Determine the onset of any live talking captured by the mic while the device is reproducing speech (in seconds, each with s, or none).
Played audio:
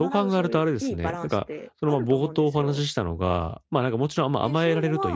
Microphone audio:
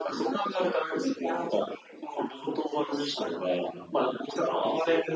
none